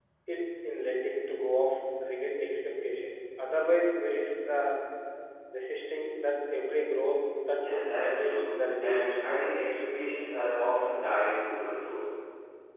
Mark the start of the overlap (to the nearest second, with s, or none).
8 s